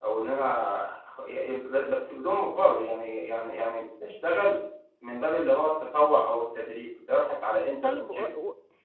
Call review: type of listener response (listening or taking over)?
taking over